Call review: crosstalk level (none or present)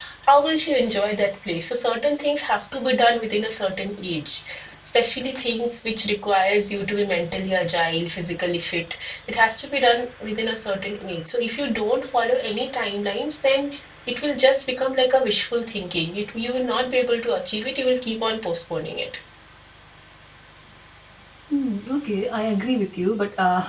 none